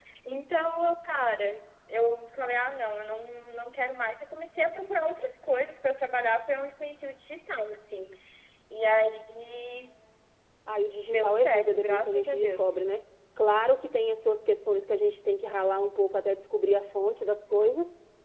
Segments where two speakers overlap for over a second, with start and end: 11.1-12.6

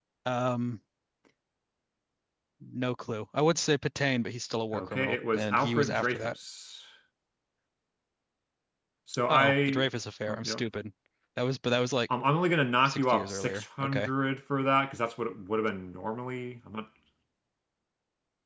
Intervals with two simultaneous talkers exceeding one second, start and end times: 4.7-6.3, 12.8-14.1

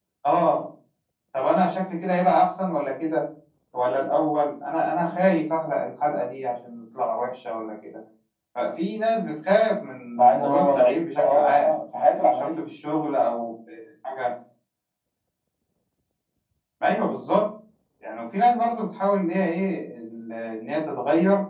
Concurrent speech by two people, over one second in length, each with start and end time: 10.4-11.7

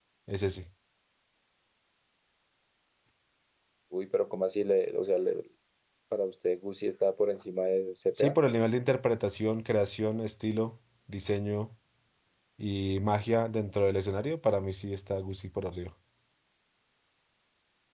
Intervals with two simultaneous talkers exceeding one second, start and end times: none

